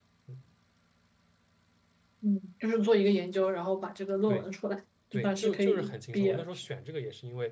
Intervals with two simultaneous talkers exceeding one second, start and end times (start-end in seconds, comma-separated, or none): 5.1-6.4